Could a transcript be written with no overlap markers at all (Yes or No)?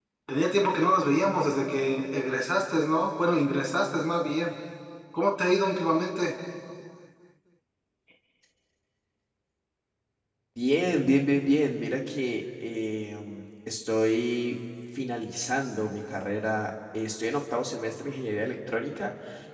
Yes